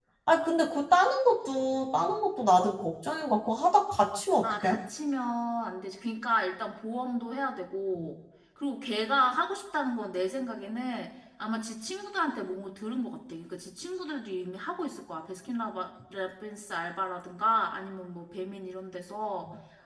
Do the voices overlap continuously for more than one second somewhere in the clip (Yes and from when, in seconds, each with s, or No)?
No